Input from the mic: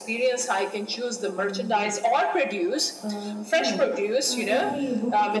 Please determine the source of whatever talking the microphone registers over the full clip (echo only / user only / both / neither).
both